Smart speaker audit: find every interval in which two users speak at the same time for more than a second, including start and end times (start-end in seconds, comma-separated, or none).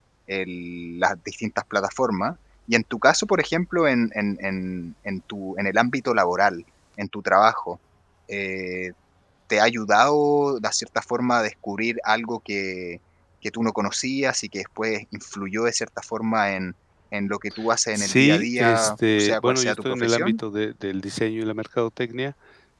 17.9-20.3